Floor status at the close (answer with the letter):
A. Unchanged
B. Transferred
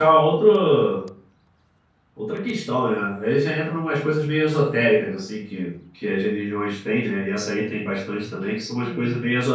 A